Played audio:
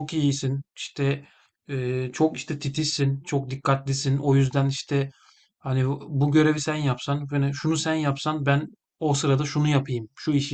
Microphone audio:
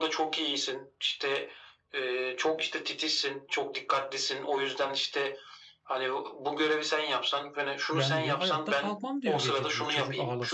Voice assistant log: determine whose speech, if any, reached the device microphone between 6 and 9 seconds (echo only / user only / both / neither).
both